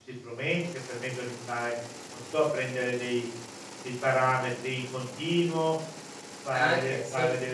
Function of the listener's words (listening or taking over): listening